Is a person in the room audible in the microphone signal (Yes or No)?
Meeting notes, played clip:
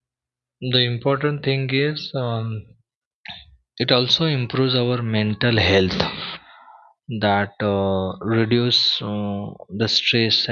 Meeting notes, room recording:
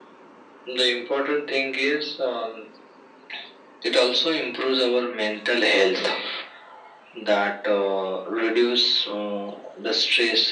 No